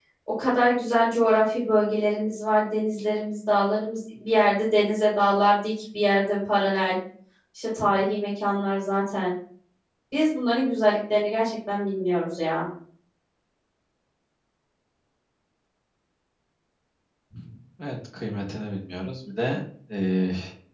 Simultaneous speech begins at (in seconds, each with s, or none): none